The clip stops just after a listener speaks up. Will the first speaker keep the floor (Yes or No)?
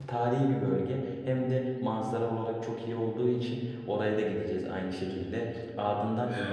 Yes